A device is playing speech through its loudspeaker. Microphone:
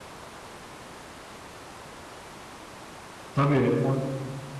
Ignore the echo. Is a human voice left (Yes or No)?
Yes